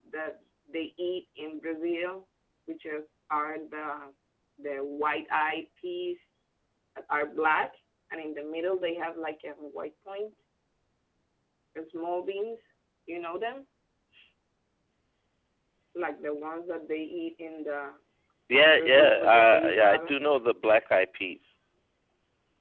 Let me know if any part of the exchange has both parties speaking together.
Yes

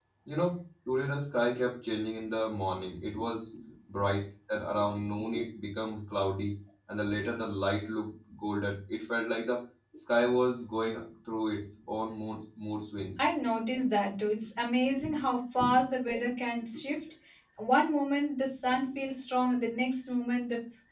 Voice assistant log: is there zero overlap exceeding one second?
Yes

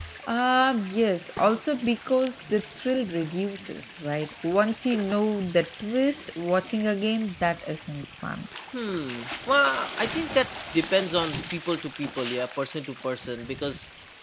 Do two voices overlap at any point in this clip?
No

